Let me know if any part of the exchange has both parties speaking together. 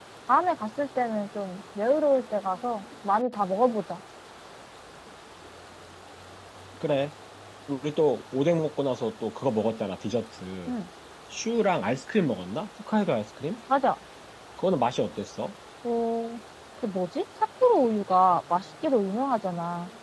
No

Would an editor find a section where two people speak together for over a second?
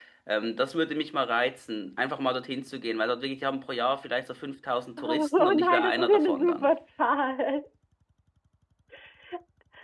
Yes, from 5.0 s

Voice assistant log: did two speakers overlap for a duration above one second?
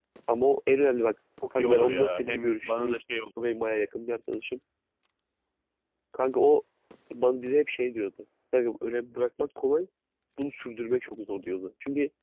Yes, from 1.4 s

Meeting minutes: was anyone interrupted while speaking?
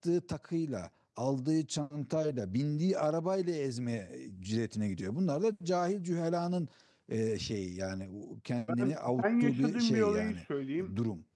Yes, from 8.7 s

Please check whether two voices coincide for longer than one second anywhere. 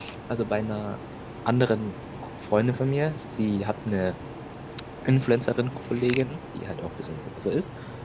No

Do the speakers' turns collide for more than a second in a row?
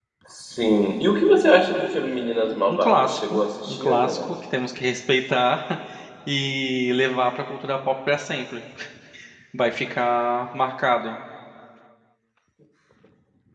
Yes, from 2.7 s

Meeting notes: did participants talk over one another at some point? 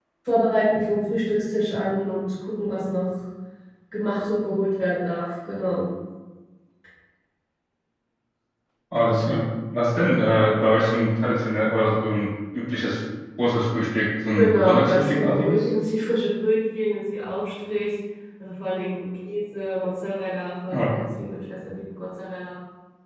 Yes, from 14.3 s

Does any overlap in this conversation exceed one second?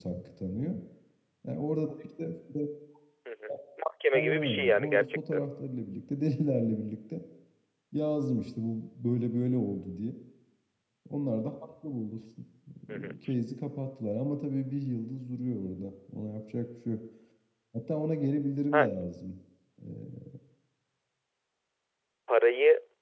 Yes, from 4.1 s

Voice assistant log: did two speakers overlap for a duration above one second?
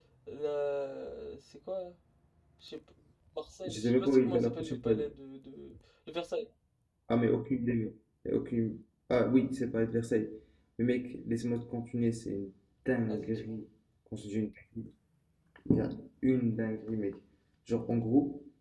Yes, from 3.6 s

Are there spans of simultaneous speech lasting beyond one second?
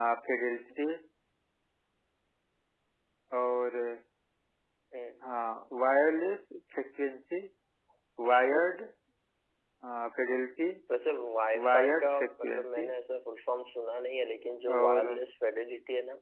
Yes, from 11.7 s

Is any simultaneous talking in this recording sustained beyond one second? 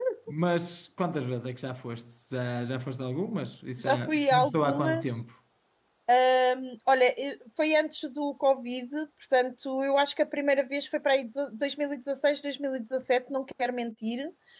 Yes, from 3.8 s

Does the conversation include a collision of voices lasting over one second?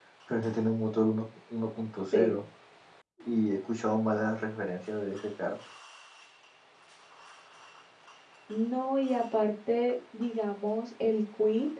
No

